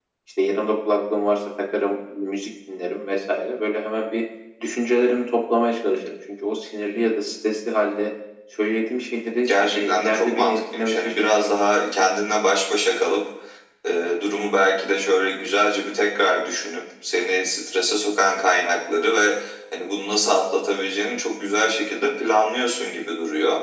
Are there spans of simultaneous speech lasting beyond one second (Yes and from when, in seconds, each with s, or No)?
Yes, from 9.4 s